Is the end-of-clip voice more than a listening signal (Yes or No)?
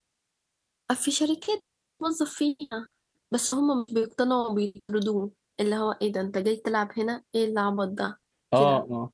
Yes